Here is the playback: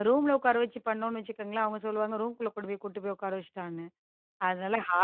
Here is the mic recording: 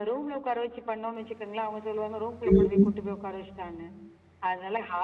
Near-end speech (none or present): present